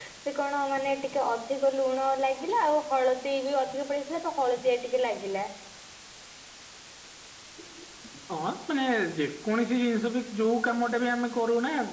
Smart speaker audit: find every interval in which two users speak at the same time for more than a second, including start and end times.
none

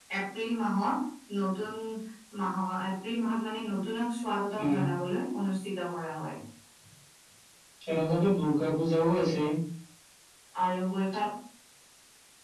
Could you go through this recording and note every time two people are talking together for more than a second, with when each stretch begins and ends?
none

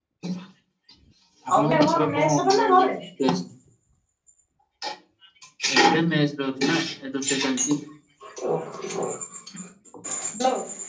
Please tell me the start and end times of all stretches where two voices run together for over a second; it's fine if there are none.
1.6-2.9

